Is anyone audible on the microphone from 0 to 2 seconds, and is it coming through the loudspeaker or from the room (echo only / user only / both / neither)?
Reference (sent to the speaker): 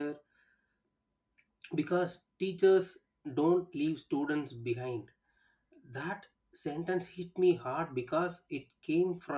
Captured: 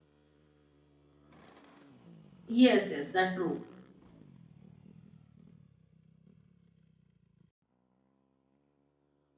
neither